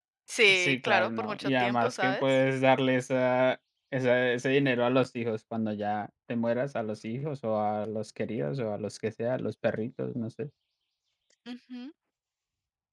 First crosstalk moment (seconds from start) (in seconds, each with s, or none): 0.5 s